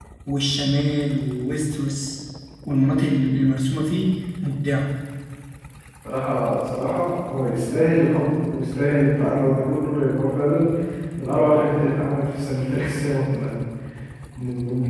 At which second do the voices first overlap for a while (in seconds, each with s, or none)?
none